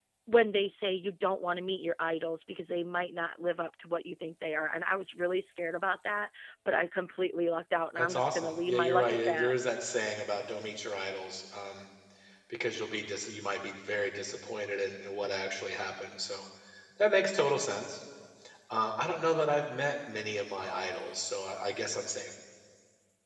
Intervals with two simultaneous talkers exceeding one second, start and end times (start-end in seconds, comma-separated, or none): 8.0-9.5